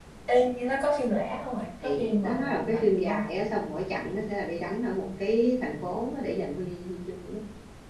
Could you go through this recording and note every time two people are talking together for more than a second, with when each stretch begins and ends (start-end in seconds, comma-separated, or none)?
1.8-3.2